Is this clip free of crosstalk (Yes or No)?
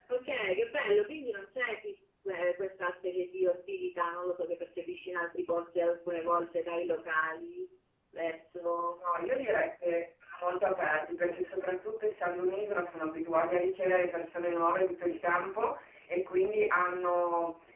Yes